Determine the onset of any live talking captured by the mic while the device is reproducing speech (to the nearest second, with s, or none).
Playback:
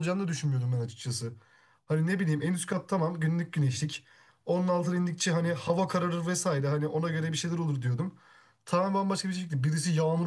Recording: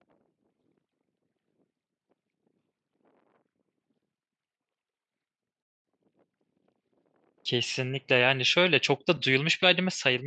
7 s